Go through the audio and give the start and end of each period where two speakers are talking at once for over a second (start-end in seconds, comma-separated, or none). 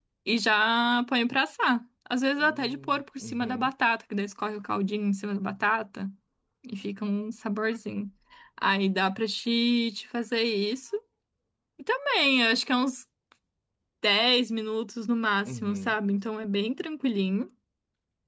2.4-3.7